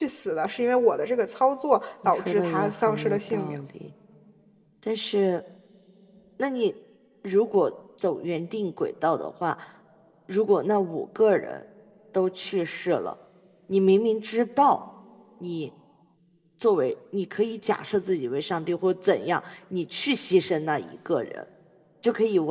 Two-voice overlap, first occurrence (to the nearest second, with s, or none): 2 s